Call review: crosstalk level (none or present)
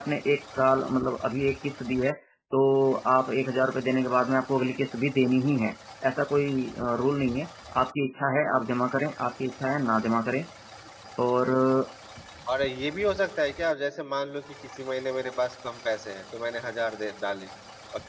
none